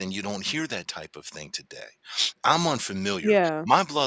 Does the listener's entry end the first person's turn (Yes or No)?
No